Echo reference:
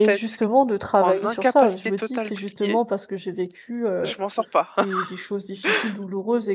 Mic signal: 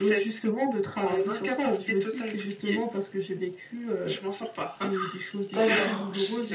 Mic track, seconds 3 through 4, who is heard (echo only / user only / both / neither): echo only